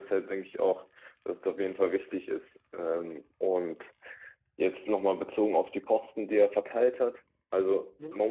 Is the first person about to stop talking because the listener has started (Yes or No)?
No